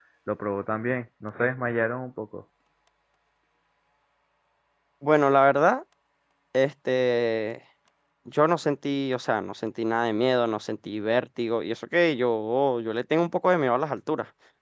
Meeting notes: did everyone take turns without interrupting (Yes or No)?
Yes